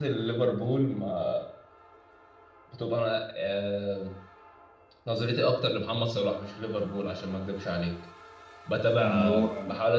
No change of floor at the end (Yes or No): Yes